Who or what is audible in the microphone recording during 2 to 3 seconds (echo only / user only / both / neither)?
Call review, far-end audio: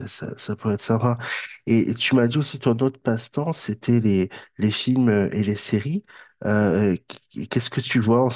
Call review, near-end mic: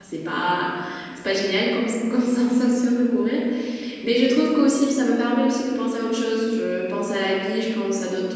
user only